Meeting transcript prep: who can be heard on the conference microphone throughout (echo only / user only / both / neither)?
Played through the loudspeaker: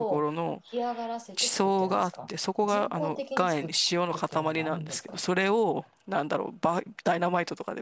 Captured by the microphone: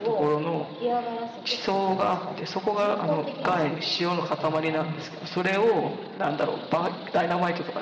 both